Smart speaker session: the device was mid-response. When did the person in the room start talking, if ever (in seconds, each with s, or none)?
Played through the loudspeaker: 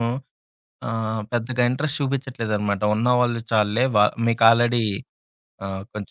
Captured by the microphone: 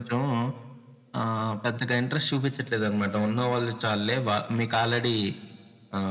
none